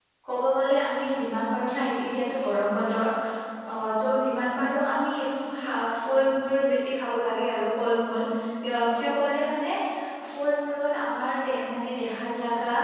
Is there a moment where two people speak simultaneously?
No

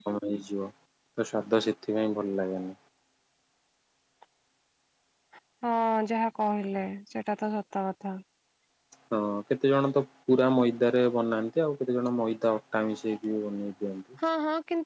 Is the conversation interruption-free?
Yes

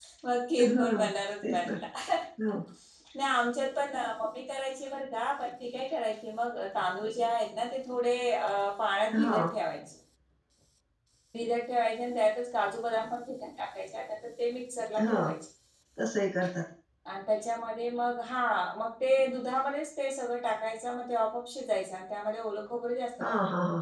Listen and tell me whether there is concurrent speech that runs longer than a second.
No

